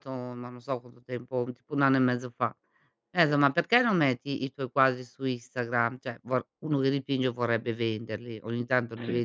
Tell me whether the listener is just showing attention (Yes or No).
Yes